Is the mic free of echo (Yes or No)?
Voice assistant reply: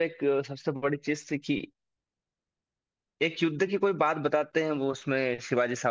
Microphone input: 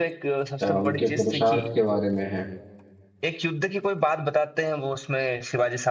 No